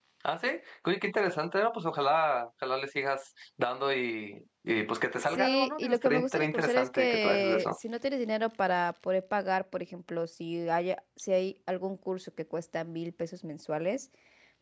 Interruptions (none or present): present